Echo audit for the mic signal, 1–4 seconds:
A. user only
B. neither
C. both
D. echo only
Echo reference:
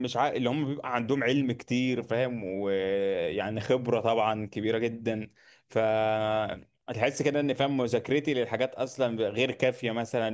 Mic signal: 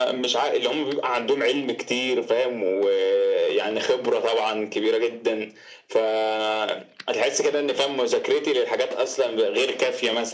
D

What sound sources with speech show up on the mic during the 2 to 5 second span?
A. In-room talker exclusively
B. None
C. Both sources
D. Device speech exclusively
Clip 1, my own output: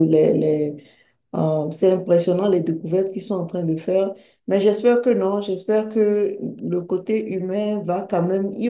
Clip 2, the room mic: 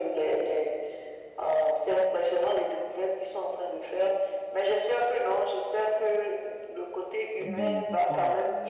D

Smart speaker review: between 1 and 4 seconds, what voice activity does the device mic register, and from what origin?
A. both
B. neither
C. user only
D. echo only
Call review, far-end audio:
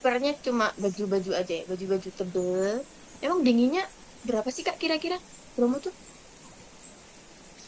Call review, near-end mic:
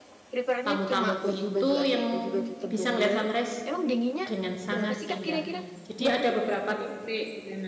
A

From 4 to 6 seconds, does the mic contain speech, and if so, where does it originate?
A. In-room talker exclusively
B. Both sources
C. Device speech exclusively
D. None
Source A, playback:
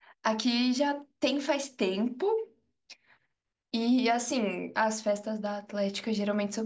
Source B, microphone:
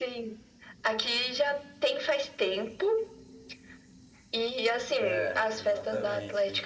B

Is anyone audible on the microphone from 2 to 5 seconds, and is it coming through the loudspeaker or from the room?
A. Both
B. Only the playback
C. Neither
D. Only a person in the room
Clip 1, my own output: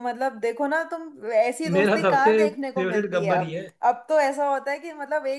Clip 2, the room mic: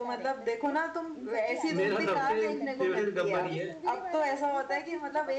A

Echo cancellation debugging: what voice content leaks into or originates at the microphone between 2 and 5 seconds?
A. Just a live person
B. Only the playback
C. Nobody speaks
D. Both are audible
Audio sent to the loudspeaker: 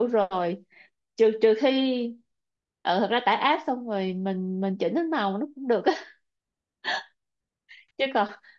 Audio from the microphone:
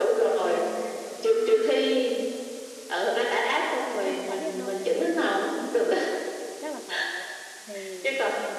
D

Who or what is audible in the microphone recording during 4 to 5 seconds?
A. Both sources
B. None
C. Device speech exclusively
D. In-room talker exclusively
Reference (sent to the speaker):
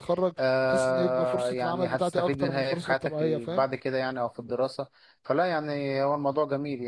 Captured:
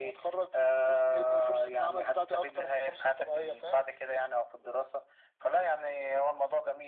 C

